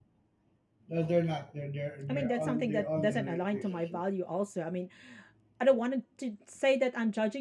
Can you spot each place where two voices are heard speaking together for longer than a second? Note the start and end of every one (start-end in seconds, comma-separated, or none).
2.1-4.0